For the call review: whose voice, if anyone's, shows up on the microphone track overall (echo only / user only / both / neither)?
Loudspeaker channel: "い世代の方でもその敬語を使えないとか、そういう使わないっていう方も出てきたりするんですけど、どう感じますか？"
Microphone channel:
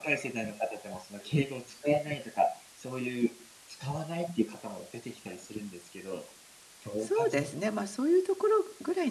both